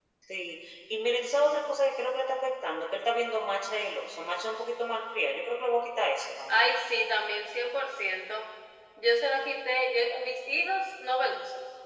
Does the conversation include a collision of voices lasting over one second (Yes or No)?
No